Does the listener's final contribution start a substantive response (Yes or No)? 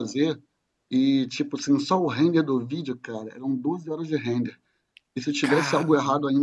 No